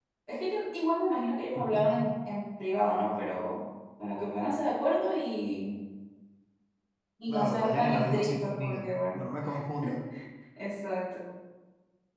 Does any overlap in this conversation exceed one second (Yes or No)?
Yes